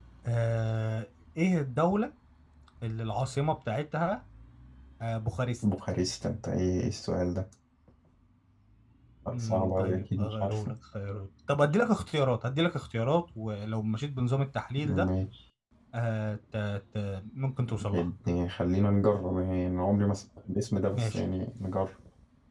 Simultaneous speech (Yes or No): Yes